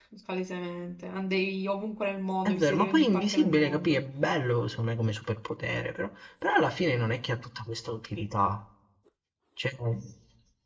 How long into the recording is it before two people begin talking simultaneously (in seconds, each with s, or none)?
2.5 s